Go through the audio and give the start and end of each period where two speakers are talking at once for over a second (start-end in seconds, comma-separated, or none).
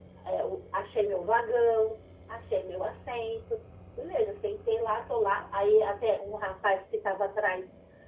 none